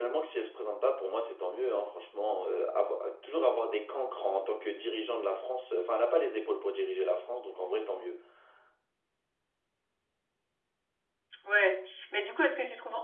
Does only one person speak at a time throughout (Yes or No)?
Yes